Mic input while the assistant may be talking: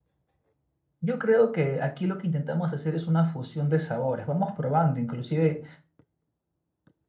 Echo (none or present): none